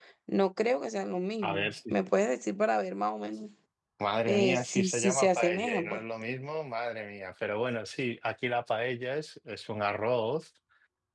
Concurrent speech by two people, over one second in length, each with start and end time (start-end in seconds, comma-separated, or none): 4.3-6.0